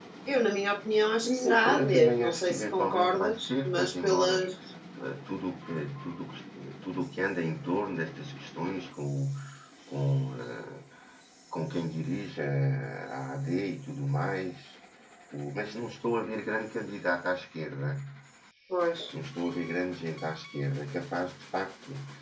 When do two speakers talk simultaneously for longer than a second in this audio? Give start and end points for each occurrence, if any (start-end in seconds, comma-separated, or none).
1.2-4.4